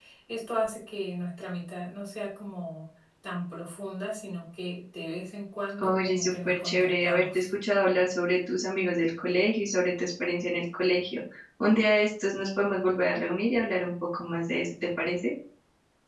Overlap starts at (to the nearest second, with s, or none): 6 s